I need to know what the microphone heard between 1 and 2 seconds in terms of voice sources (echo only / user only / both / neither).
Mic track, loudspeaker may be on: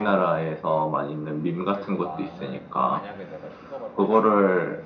both